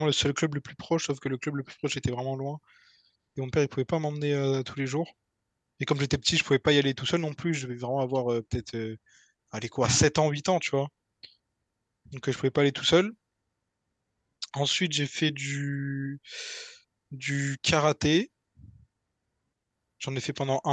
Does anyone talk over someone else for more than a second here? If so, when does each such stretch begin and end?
none

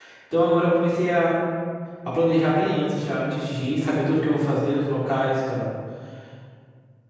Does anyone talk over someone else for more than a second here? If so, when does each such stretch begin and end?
none

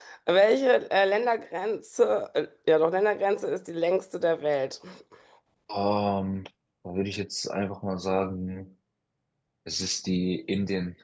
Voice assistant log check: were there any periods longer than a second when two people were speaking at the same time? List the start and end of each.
none

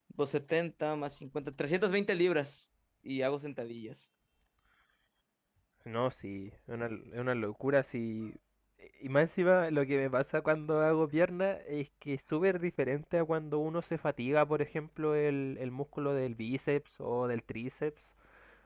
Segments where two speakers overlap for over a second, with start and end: none

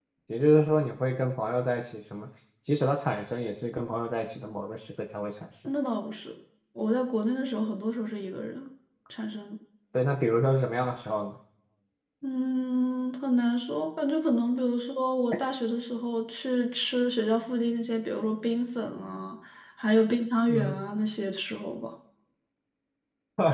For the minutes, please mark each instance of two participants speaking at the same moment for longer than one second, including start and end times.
none

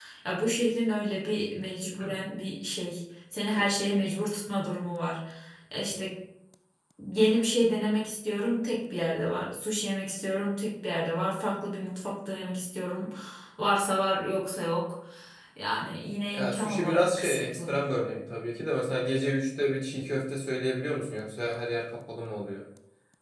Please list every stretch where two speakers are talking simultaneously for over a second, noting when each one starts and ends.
16.3-17.7

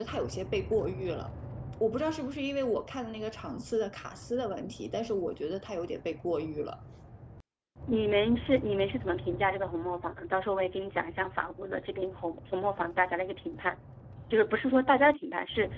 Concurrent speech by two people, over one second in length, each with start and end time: none

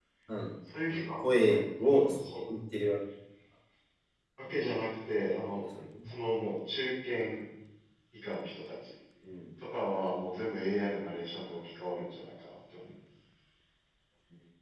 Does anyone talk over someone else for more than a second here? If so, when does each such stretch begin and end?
0.9-2.5

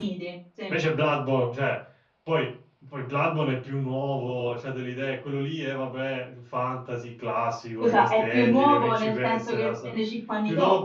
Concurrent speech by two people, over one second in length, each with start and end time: 7.8-10.0

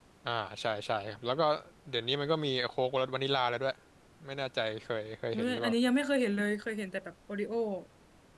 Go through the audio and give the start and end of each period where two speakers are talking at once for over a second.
none

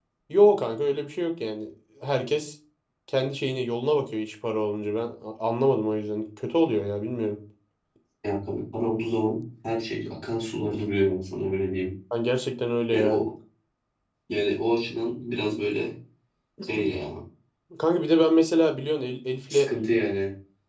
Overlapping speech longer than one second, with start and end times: none

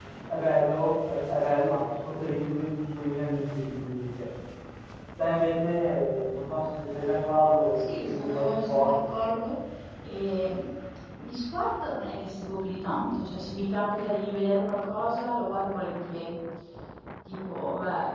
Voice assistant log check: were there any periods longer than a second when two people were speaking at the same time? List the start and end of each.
7.8-9.0

